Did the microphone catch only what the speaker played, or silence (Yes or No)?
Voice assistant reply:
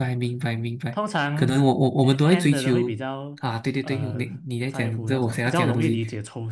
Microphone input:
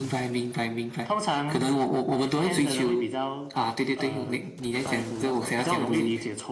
Yes